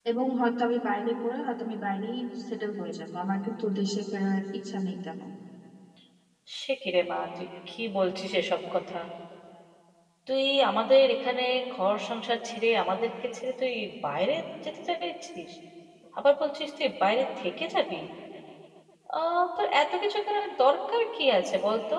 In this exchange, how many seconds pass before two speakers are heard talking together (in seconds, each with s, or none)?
none